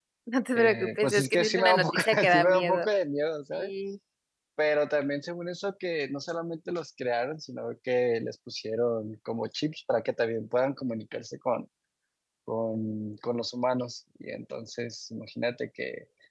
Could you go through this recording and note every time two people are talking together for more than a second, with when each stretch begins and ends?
0.6-2.9

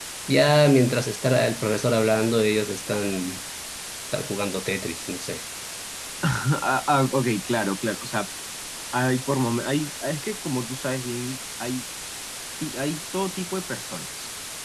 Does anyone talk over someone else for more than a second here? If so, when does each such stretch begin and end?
none

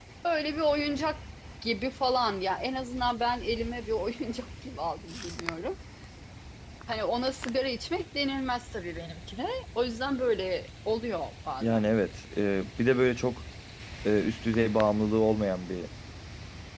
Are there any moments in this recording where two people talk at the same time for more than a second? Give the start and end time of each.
none

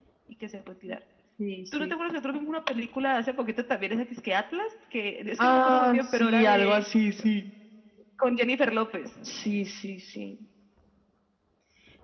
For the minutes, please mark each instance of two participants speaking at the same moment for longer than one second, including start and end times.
5.4-6.8

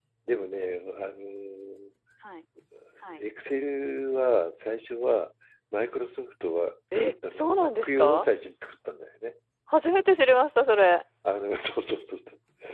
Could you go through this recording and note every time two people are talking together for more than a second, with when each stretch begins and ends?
6.9-8.3

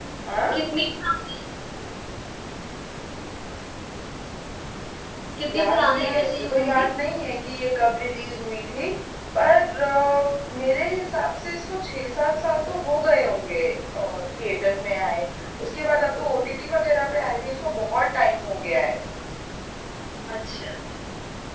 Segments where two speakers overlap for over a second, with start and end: 5.5-6.8

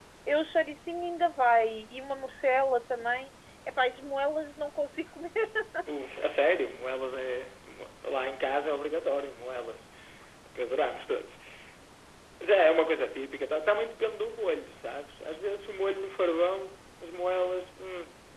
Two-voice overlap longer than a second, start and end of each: none

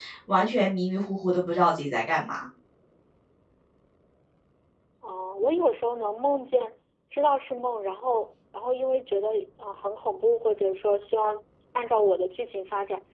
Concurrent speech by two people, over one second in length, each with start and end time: none

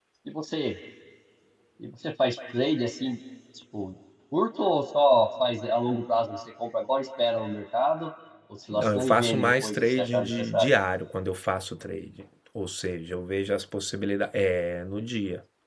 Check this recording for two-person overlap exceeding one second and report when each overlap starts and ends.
8.7-10.7

